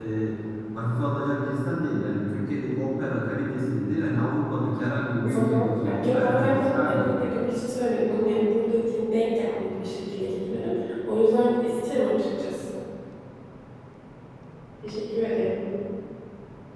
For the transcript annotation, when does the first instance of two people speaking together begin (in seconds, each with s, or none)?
5.2 s